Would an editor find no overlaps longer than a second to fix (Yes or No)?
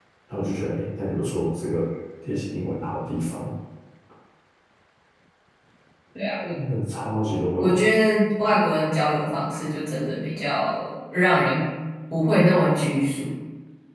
Yes